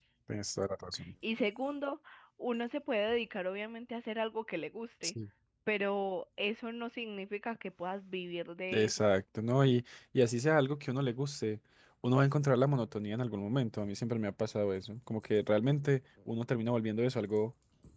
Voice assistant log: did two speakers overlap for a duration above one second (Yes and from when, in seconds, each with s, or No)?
No